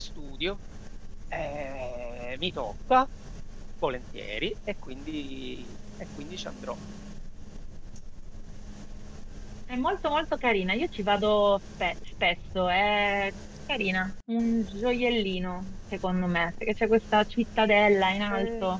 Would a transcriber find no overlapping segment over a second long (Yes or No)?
Yes